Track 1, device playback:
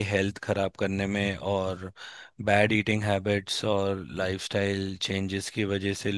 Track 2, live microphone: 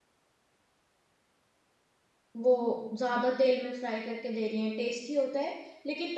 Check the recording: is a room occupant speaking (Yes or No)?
Yes